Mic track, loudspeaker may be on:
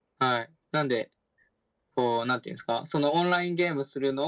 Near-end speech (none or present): none